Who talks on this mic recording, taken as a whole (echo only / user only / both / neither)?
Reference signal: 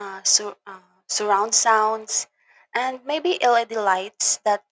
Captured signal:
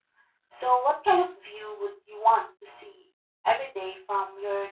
user only